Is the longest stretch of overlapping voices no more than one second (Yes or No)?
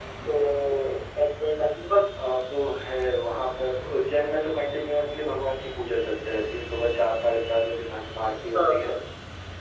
Yes